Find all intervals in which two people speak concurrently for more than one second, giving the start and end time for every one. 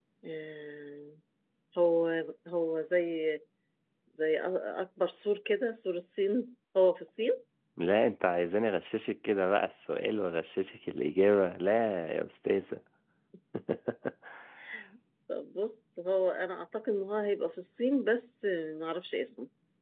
none

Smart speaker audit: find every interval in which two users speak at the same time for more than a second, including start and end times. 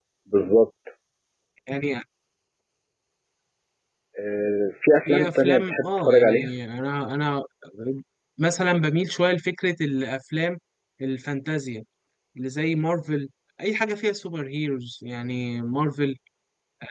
5.1-6.5

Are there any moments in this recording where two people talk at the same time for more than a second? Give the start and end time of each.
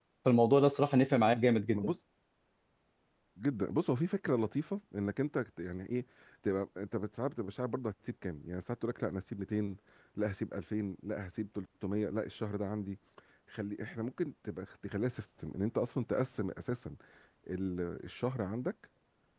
none

